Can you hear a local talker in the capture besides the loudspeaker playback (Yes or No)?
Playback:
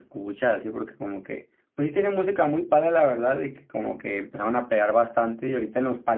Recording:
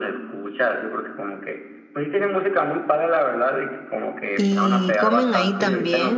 Yes